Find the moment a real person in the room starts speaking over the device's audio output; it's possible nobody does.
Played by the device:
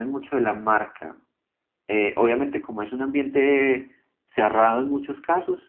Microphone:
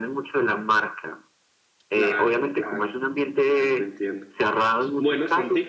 1.9 s

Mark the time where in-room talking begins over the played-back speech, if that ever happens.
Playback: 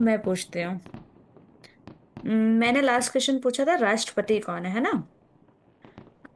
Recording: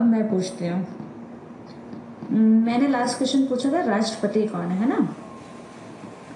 none

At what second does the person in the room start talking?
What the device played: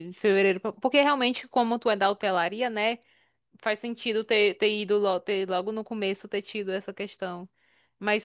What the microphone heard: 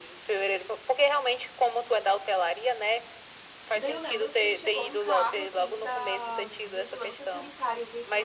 3.7 s

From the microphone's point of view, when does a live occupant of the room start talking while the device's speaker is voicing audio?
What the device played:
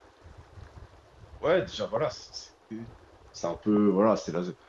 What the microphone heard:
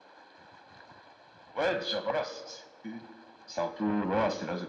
none

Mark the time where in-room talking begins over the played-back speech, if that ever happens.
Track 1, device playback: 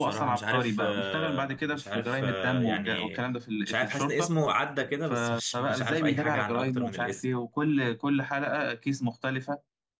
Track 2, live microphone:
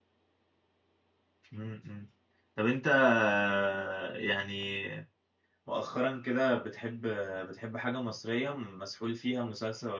1.5 s

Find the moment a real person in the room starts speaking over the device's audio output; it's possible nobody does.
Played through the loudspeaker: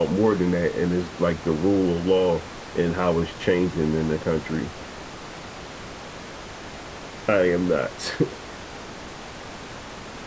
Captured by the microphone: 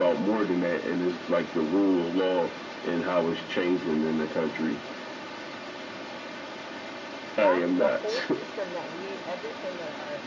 7.3 s

